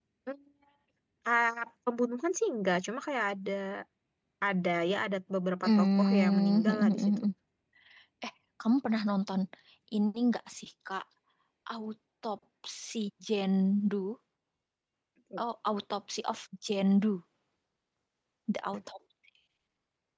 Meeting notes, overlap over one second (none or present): present